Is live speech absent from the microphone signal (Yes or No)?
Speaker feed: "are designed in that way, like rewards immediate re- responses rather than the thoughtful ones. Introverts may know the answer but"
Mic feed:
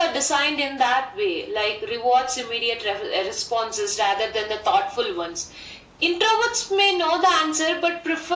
Yes